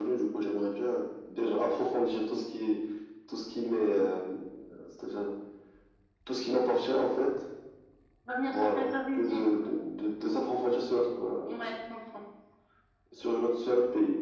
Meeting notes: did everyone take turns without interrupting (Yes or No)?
No